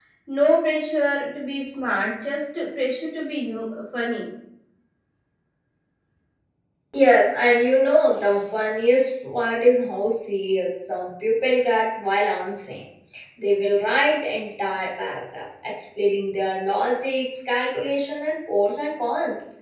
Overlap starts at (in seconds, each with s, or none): none